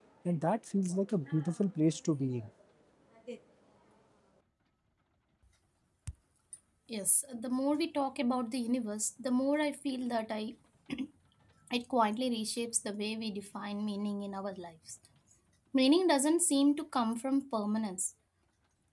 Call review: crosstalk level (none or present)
none